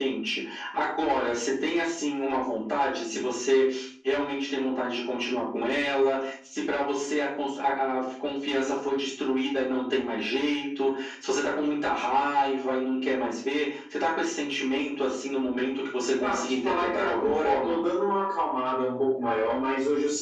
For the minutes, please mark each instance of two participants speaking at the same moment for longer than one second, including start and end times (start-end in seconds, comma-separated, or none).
16.2-17.8